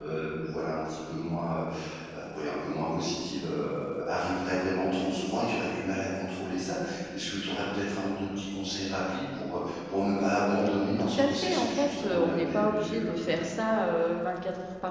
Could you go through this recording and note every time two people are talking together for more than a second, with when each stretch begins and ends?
11.0-13.3

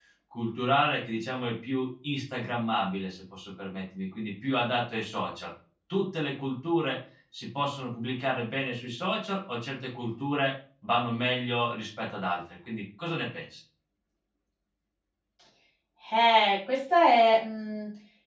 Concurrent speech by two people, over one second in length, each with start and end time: none

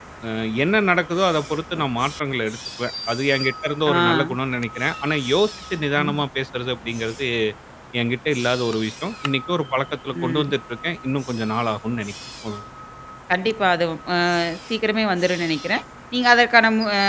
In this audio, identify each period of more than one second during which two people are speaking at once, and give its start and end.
none

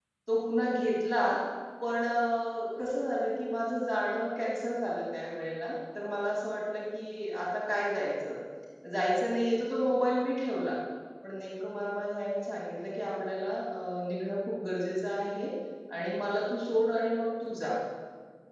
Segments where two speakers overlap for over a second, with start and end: none

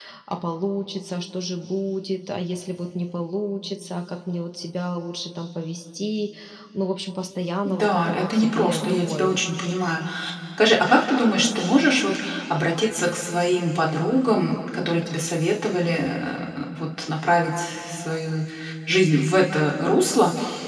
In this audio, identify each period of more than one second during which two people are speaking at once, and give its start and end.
7.7-9.3

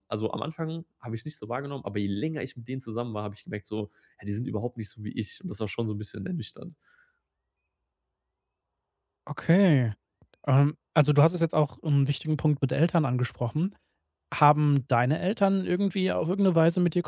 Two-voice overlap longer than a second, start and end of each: none

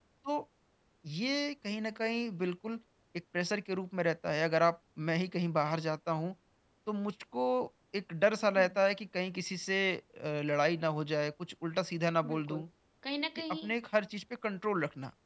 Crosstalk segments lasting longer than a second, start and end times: none

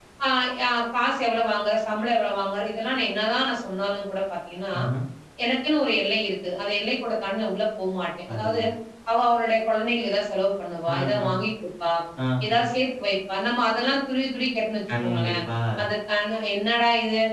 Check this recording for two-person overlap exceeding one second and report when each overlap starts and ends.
none

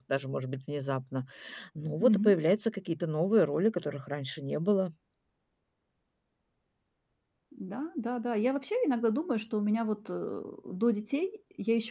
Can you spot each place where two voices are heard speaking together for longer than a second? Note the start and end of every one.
none

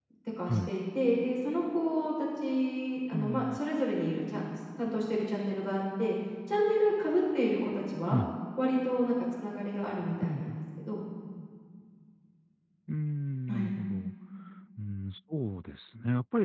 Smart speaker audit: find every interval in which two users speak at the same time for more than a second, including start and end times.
none

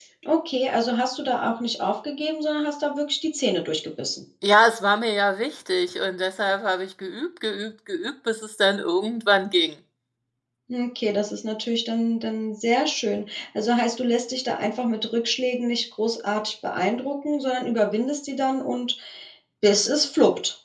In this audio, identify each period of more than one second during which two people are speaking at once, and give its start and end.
none

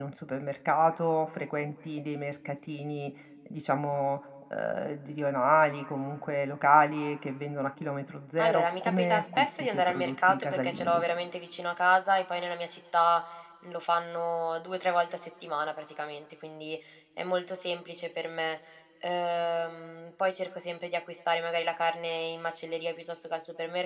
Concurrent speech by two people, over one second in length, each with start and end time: 8.4-11.0

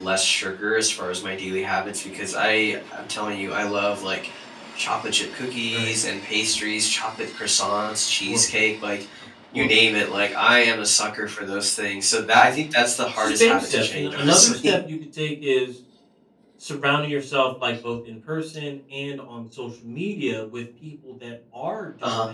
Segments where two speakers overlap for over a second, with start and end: 13.2-14.7

